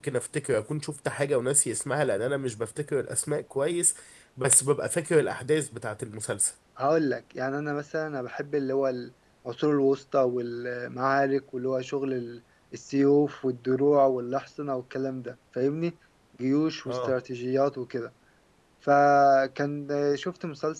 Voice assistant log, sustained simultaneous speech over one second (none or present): none